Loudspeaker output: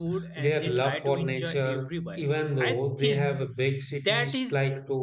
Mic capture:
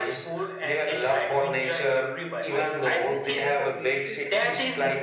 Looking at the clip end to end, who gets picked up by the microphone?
both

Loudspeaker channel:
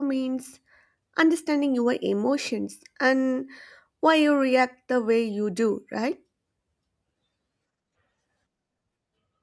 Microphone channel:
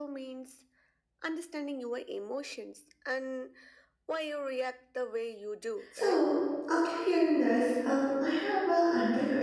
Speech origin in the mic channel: both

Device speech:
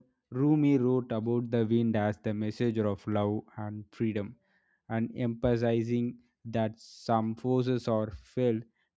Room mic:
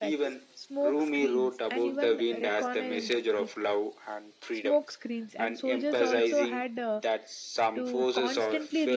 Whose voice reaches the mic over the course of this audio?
both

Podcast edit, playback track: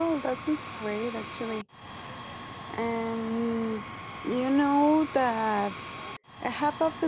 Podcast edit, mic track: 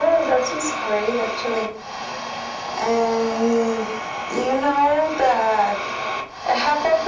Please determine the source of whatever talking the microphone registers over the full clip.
echo only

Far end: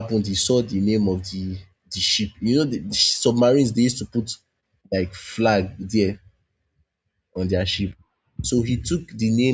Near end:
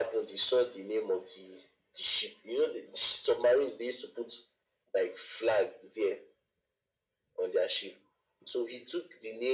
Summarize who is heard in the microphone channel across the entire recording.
echo only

